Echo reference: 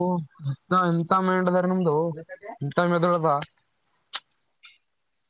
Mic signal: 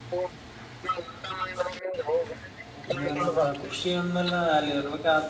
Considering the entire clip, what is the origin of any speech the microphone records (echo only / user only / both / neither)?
both